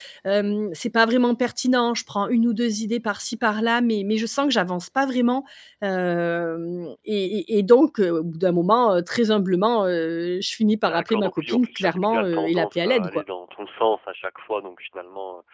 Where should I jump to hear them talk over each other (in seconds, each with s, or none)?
10.7 s